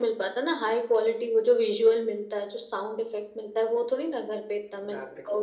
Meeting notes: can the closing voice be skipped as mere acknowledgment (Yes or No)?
No